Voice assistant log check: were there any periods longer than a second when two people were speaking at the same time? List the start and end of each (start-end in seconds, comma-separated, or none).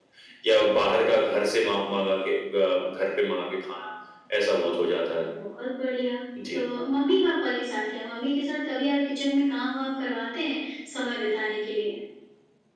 none